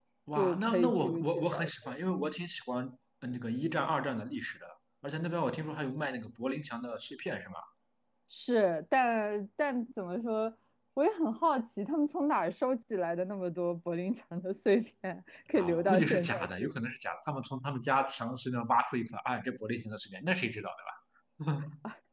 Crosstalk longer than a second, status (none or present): present